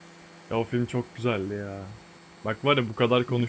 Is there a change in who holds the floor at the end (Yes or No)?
No